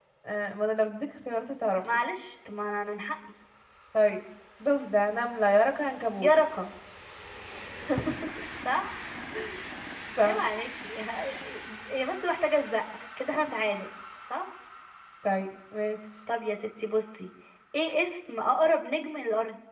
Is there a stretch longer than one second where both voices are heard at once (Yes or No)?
No